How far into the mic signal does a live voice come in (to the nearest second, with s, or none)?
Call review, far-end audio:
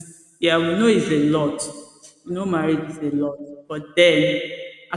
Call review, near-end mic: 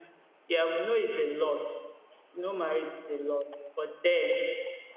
none